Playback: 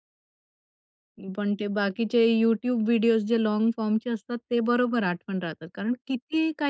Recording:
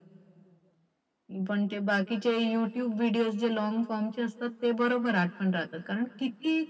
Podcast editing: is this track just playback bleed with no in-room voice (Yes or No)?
Yes